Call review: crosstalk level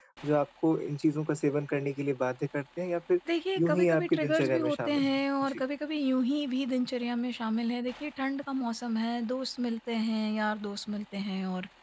present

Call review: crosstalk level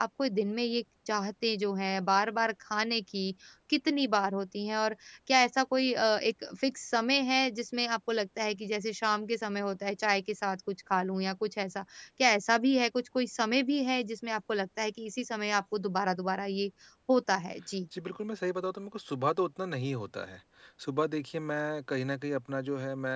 none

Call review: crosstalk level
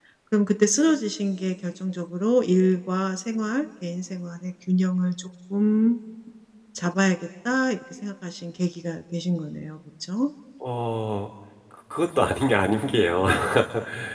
none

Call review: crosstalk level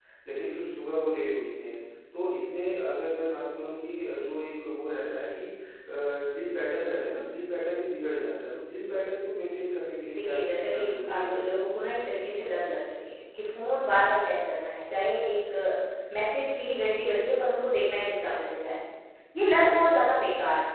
present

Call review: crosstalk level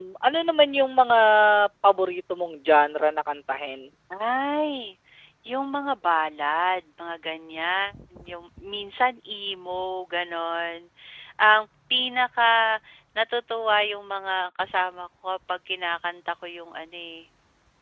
none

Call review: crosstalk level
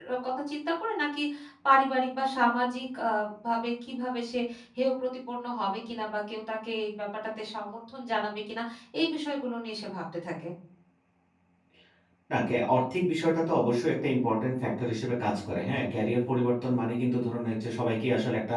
none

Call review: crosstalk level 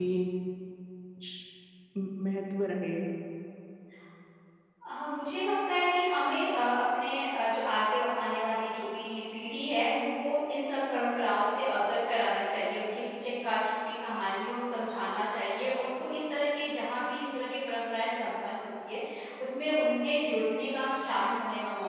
none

